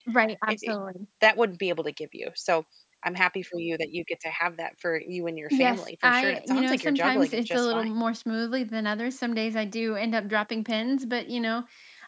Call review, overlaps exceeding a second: present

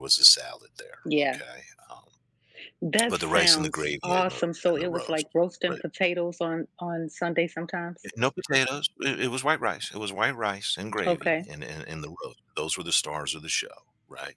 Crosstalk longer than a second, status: present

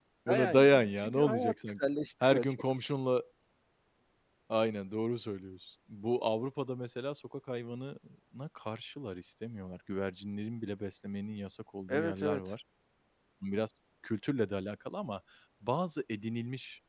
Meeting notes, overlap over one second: present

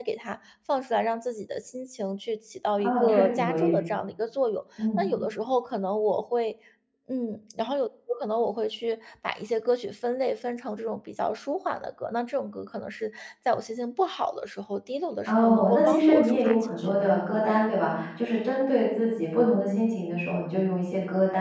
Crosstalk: present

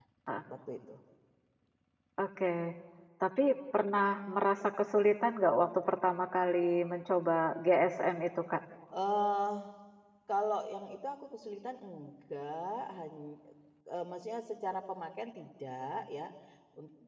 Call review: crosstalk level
none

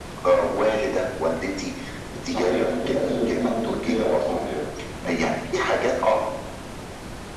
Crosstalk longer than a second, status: present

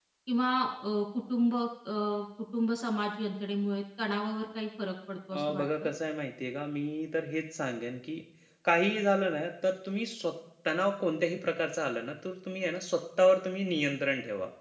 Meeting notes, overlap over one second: none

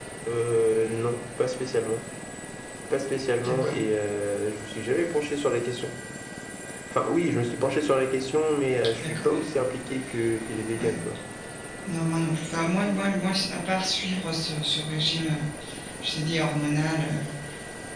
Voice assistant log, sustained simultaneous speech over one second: none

